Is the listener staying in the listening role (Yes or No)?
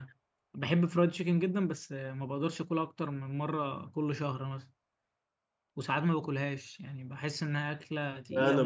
No